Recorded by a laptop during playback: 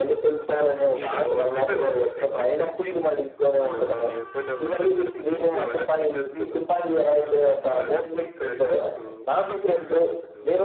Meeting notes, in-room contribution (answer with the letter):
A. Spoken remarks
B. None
A